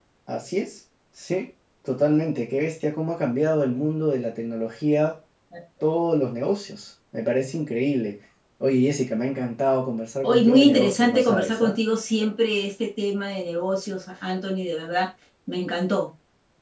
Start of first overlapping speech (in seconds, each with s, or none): 10.2 s